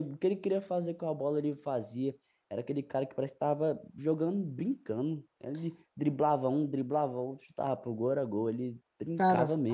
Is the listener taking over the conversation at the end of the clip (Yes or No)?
Yes